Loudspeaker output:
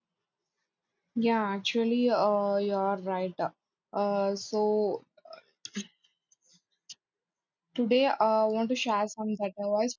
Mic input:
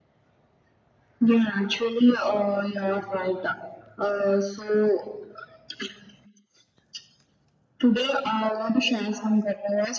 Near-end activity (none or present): none